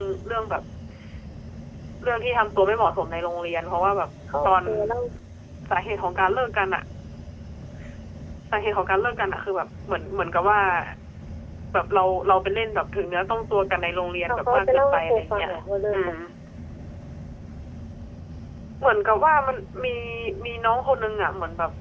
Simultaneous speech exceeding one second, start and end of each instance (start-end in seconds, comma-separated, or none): 14.3-15.5